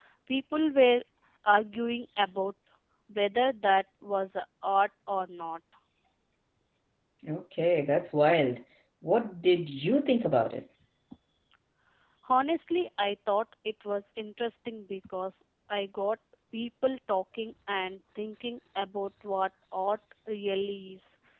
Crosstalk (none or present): none